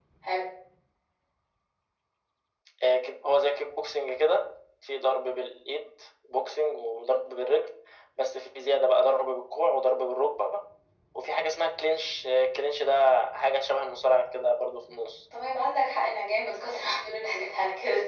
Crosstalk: none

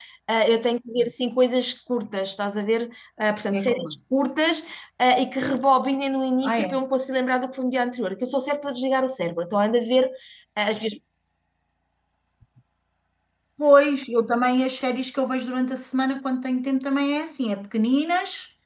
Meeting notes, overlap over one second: none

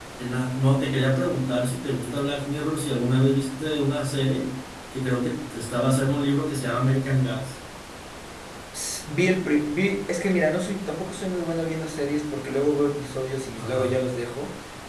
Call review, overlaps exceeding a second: none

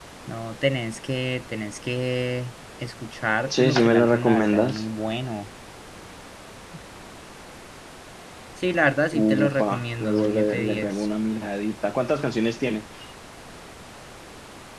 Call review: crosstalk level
present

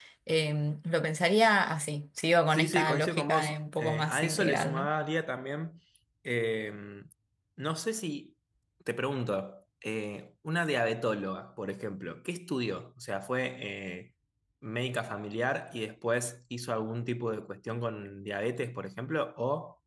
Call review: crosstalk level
present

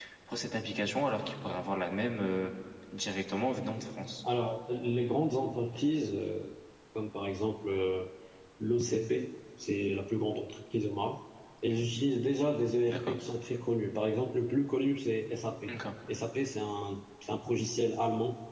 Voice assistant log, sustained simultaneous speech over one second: none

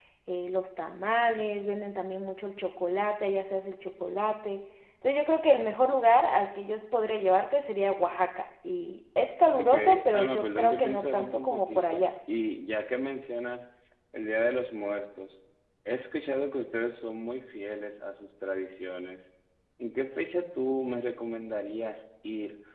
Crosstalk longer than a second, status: present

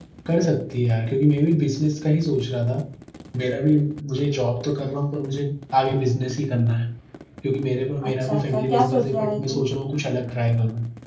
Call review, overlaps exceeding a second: present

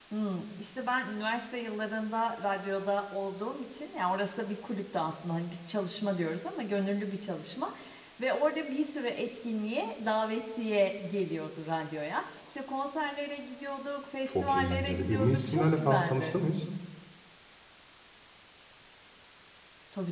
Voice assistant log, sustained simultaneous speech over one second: present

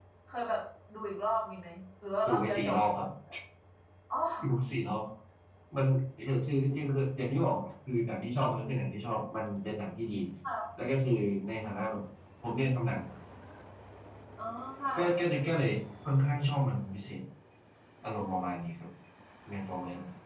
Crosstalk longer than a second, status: none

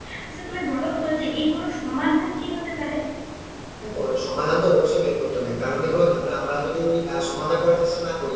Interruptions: none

